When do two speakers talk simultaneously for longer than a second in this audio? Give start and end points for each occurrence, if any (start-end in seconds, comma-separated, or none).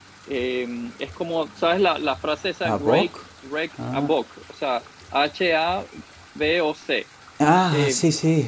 none